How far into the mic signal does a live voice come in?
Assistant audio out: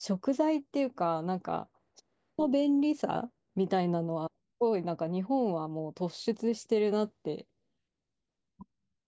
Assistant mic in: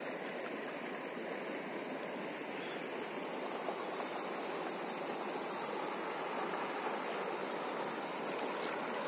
none

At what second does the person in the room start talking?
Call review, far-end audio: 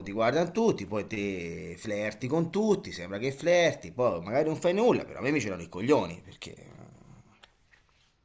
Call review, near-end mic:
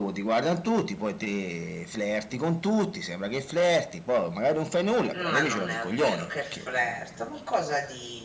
5.1 s

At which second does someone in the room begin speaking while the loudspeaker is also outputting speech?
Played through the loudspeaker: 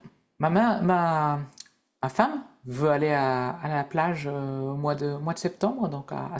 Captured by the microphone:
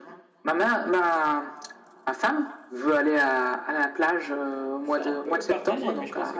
4.8 s

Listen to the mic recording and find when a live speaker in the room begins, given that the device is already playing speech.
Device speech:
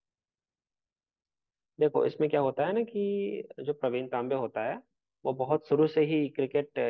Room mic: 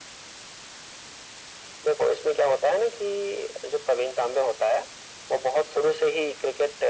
none

